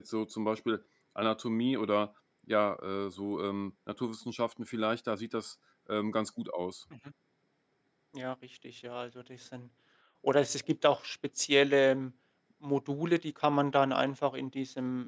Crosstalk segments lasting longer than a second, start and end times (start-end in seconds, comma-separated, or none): none